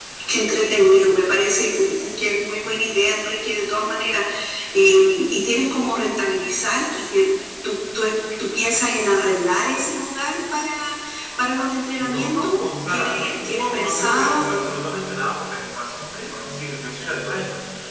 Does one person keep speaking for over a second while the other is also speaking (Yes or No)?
Yes